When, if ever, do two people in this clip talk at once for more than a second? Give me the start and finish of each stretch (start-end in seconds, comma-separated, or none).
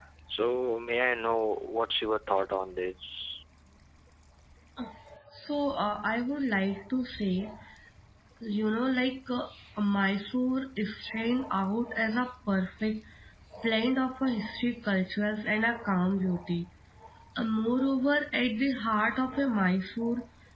none